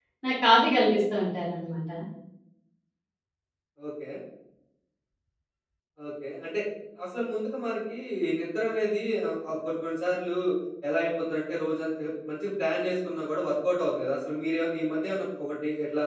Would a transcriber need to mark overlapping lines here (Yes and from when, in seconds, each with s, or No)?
No